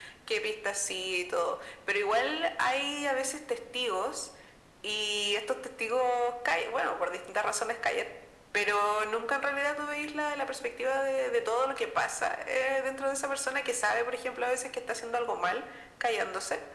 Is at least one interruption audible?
No

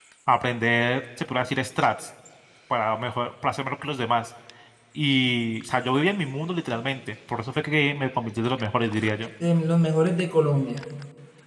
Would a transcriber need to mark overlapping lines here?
No

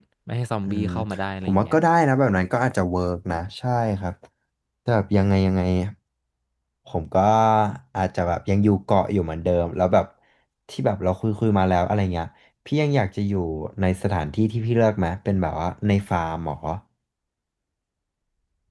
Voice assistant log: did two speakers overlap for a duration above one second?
No

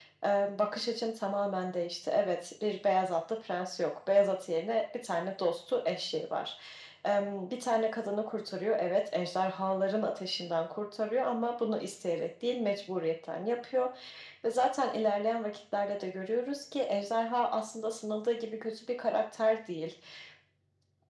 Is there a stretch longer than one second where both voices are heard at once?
No

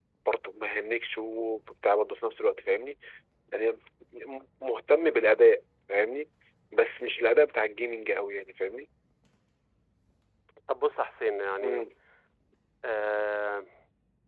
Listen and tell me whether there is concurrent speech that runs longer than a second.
No

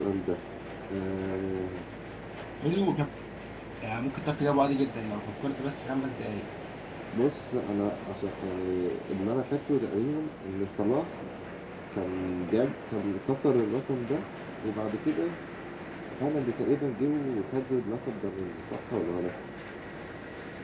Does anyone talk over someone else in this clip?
No

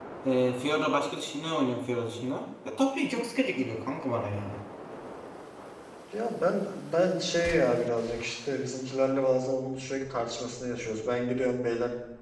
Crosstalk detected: No

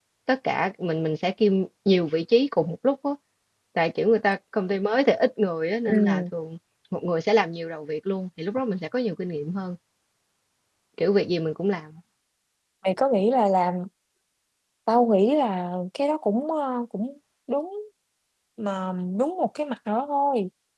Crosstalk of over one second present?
No

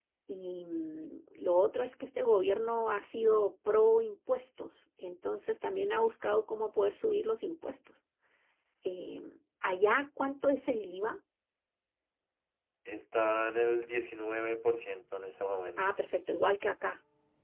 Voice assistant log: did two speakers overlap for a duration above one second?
No

